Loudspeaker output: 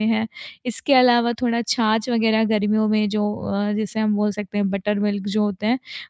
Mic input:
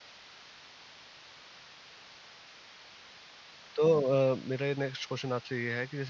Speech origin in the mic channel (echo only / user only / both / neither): user only